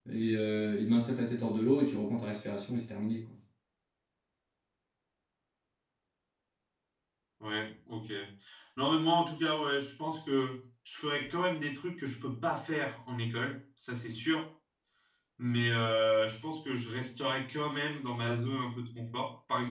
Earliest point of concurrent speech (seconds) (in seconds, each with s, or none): none